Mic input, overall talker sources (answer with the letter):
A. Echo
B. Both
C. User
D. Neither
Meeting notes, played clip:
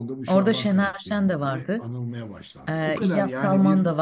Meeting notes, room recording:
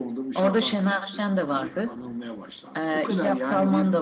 A